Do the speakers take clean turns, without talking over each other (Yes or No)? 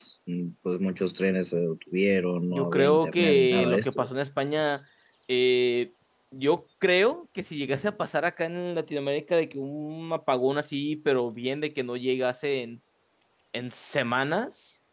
No